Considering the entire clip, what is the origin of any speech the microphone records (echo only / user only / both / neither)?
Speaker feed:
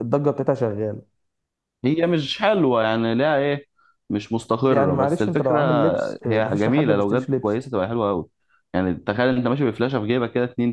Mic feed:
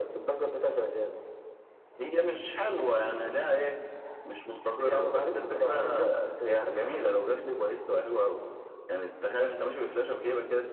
echo only